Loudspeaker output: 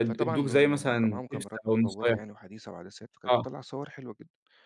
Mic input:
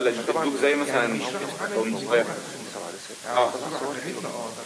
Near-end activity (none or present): present